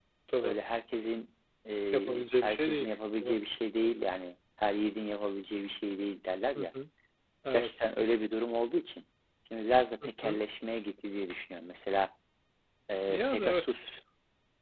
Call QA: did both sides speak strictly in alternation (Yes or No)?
No